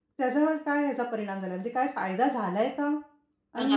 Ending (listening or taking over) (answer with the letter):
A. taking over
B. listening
A